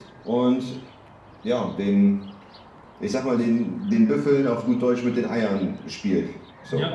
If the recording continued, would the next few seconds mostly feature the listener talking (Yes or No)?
Yes